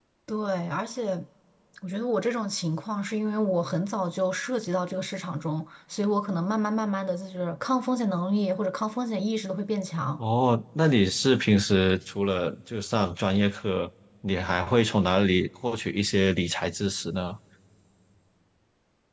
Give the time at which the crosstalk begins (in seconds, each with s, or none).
none